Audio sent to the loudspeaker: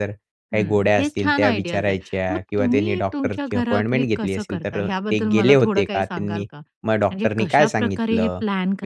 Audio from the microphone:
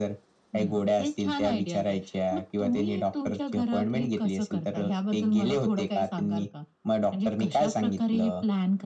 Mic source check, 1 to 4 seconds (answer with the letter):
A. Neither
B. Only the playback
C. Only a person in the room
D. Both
B